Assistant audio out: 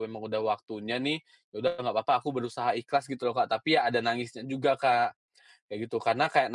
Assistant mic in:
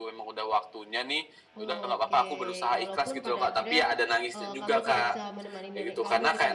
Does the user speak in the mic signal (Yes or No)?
Yes